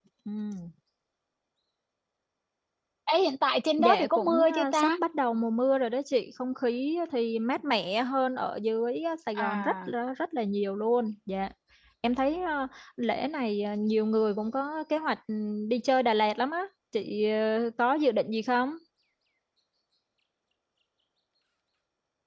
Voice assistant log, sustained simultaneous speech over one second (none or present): present